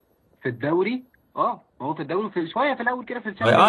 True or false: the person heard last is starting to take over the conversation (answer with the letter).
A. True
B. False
A